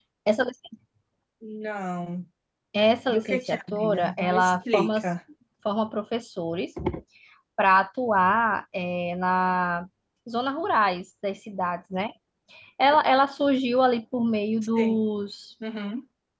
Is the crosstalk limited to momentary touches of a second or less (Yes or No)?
No